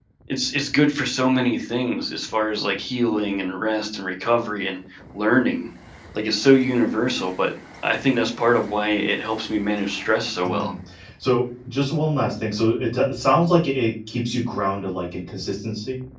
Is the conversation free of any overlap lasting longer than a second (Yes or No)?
Yes